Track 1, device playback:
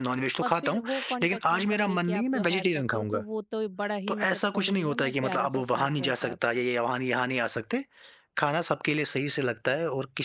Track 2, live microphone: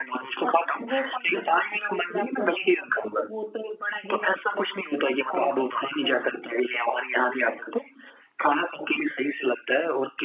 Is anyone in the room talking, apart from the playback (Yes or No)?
No